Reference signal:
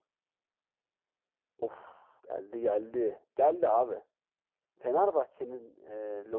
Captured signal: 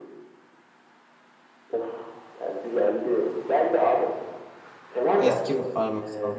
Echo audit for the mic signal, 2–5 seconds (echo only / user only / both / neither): echo only